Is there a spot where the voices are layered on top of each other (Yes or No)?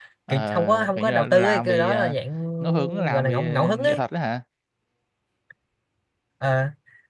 Yes